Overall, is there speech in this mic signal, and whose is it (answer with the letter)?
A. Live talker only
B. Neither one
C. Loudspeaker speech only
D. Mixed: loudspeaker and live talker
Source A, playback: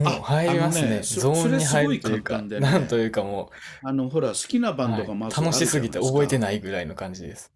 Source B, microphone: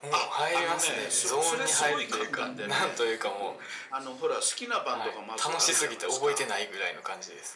D